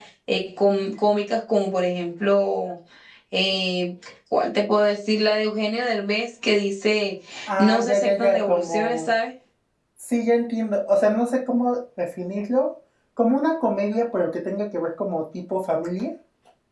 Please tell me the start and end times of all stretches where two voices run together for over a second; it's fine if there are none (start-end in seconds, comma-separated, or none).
7.6-9.1